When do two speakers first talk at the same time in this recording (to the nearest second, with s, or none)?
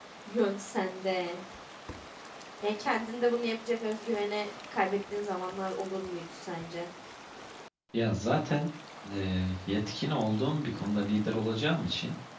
none